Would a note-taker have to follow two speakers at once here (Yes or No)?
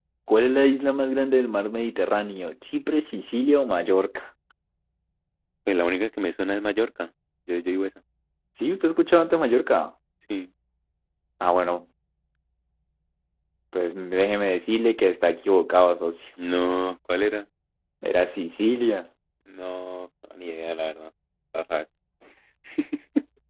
No